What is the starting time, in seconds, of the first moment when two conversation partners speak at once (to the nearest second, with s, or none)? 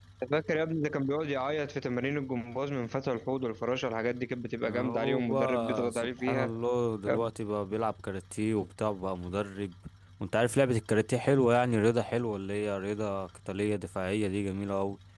5 s